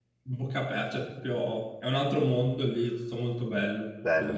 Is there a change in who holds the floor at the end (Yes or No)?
Yes